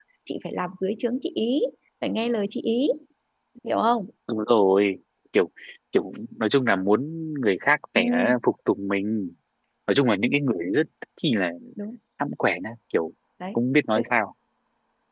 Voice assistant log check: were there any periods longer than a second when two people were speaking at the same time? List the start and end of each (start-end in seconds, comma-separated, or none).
none